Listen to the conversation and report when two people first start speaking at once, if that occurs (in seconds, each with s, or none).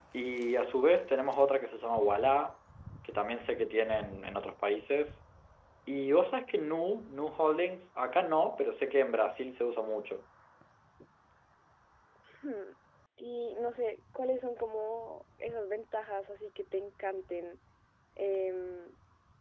none